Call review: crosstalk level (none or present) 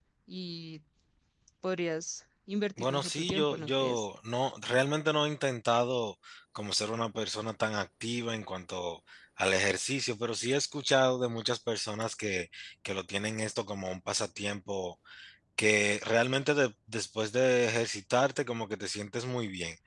present